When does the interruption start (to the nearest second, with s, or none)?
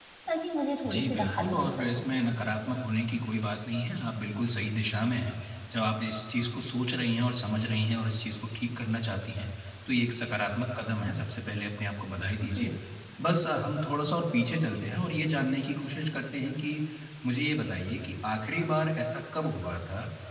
1 s